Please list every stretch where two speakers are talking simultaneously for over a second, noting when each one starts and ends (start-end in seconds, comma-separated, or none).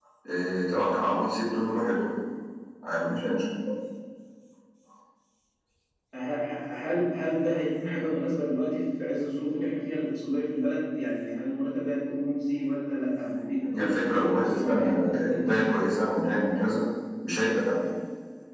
13.6-15.5